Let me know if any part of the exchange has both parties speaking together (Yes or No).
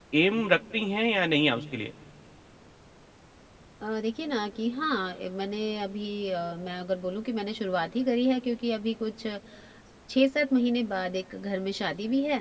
No